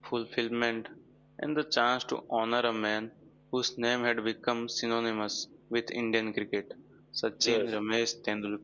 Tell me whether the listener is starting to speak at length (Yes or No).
No